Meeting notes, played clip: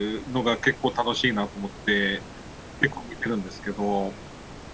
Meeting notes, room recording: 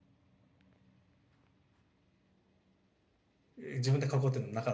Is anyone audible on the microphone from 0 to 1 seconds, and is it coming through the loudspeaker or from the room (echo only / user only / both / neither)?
neither